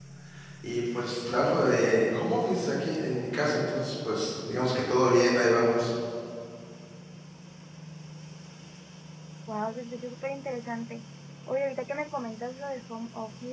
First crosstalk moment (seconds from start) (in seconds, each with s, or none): none